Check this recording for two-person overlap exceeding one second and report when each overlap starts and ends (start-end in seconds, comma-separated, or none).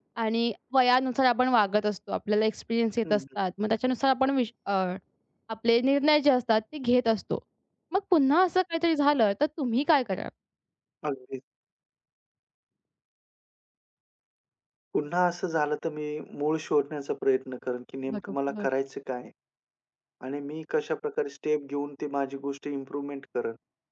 none